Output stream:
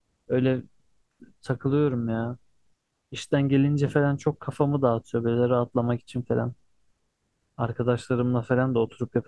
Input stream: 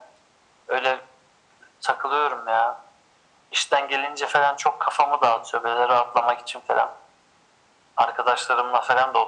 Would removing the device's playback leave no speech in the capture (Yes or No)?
Yes